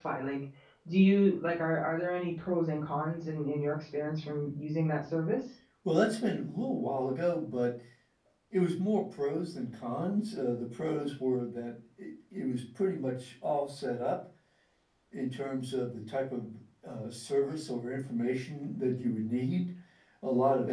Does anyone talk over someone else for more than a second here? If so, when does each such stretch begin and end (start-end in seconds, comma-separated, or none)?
none